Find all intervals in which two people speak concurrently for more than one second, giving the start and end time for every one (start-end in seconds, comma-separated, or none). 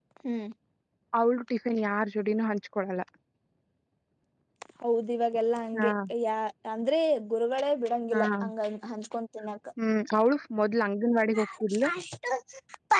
none